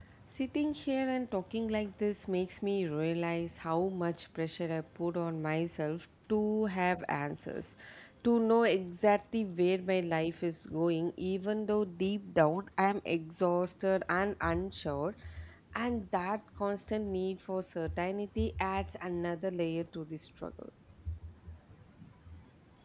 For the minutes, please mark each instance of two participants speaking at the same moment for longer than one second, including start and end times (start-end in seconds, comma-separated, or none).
none